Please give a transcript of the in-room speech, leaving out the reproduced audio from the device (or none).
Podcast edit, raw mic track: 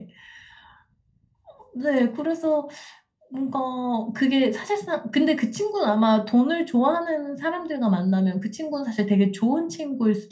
none